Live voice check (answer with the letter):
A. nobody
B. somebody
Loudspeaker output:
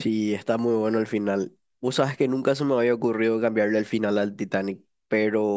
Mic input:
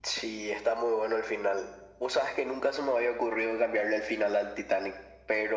A